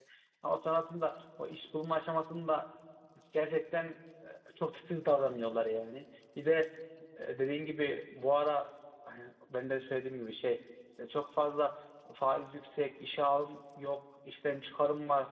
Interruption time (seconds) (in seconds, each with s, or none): none